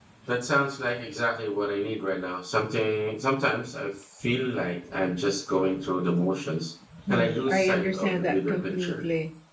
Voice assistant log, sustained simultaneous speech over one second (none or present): present